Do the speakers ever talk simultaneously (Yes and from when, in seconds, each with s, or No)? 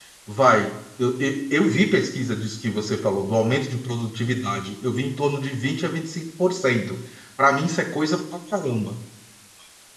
No